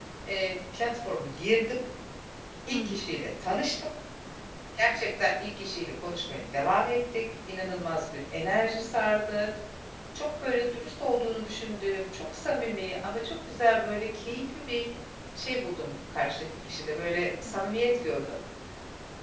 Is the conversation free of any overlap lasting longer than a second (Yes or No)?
Yes